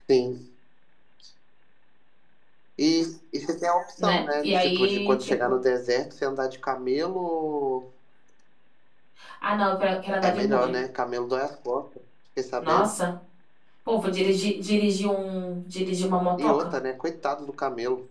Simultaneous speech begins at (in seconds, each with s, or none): 4.0 s